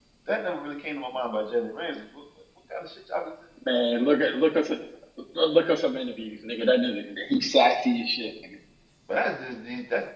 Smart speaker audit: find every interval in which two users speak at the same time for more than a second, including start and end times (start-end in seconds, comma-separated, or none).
none